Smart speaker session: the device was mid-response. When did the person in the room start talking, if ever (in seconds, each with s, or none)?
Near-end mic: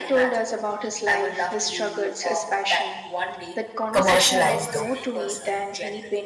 3.9 s